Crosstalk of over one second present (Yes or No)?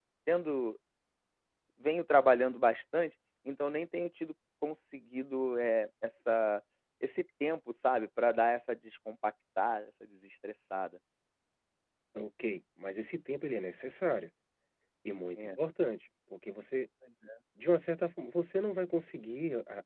No